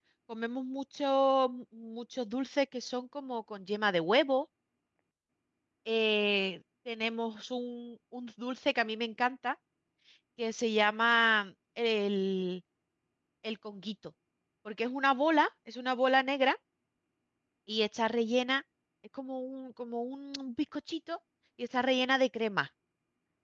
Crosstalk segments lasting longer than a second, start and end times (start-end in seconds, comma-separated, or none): none